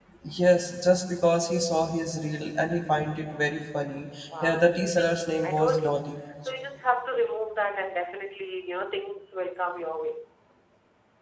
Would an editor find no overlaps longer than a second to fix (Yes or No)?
No